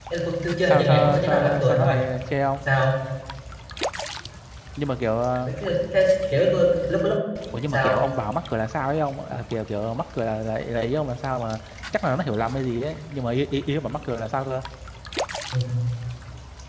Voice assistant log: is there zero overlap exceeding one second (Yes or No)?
No